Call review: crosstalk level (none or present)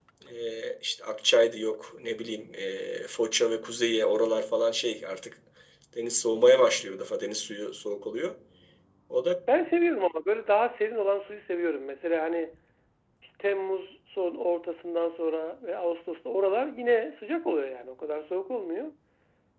none